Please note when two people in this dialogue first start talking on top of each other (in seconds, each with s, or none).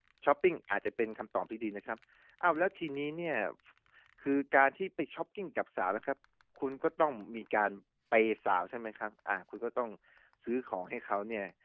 none